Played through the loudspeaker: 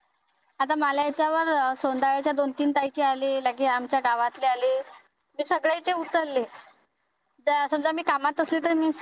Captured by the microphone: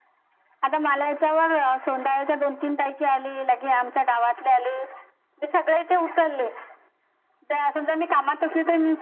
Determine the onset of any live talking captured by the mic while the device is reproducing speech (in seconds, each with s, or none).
none